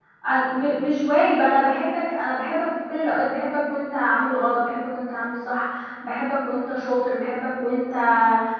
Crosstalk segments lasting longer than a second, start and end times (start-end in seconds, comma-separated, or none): none